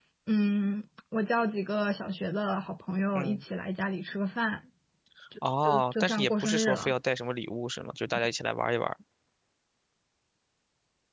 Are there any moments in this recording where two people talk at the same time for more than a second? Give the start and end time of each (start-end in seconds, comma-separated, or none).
5.6-6.9